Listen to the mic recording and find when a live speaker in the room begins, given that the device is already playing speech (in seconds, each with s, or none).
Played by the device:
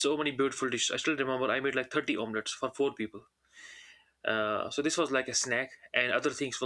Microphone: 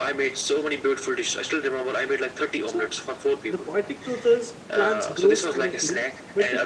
2.6 s